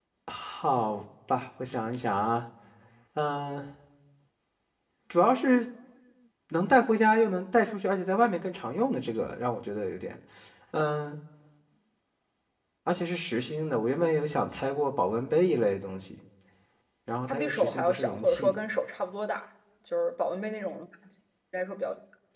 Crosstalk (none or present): present